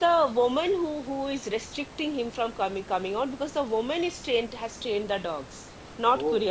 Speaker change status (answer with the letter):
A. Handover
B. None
A